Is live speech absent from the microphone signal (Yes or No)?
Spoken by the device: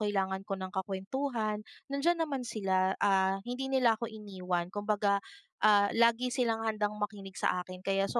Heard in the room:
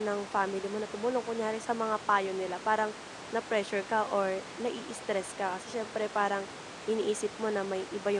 No